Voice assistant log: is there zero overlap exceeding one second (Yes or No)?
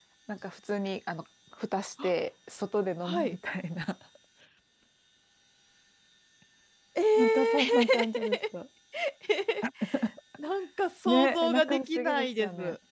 No